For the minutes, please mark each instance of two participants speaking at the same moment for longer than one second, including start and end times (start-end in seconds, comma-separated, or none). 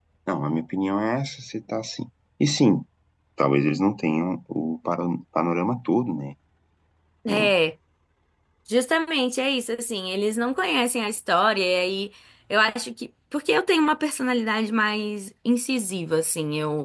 none